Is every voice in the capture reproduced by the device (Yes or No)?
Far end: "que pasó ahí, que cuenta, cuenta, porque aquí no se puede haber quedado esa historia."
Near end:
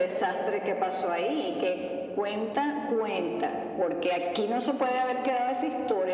Yes